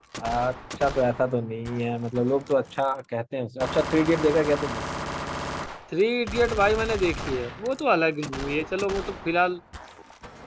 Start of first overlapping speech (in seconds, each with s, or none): none